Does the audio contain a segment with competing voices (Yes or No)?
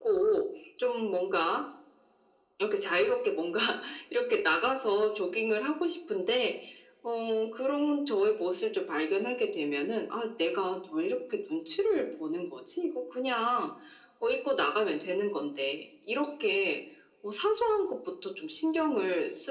No